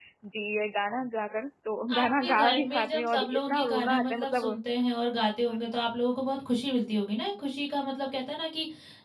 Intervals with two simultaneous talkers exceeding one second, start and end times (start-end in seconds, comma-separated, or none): 1.9-4.6